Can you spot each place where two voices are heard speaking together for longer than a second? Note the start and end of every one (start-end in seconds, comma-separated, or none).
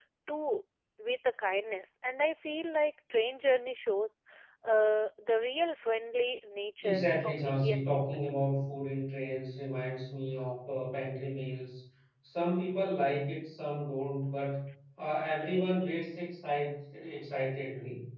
6.8-8.2